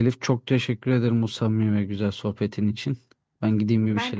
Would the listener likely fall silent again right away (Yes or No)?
Yes